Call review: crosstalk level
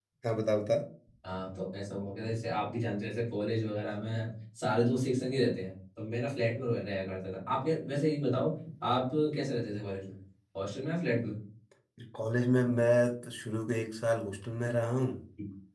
none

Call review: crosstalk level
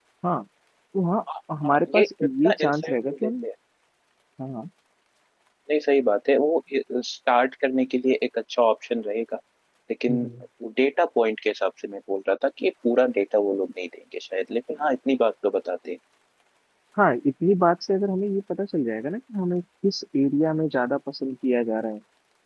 present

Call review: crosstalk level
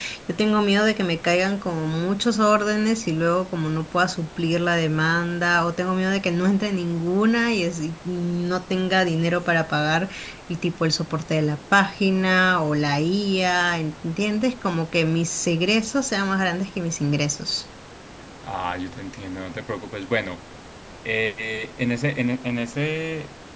none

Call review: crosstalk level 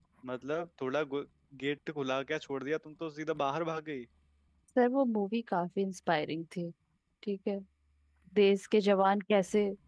none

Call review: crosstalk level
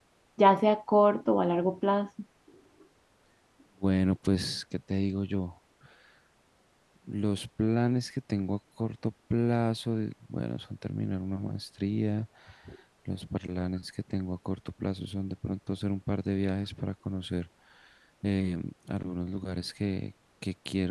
none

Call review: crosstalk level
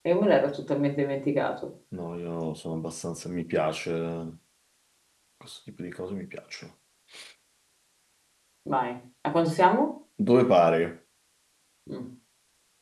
none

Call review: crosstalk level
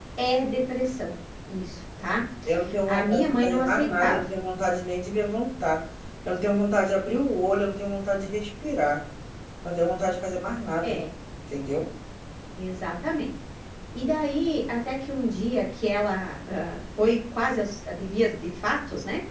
present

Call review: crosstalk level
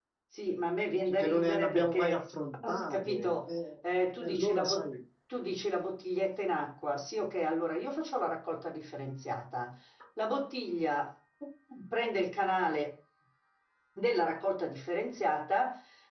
present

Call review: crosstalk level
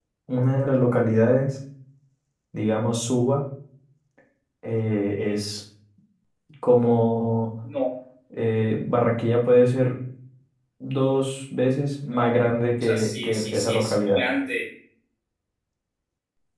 present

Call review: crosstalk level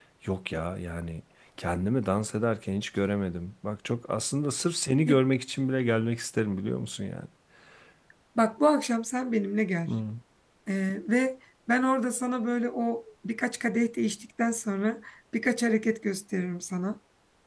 none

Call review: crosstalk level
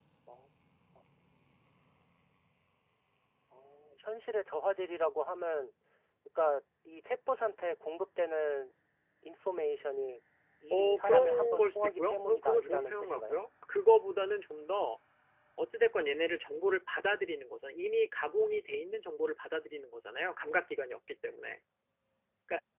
present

